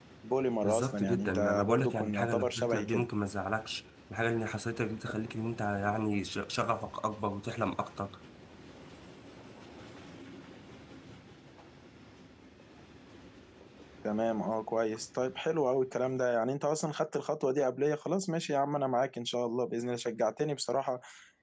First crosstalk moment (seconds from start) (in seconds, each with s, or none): 0.6 s